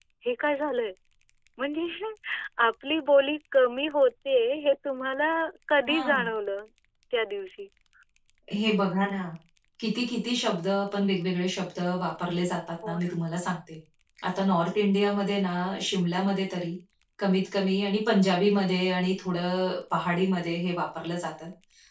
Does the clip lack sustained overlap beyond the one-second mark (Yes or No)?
Yes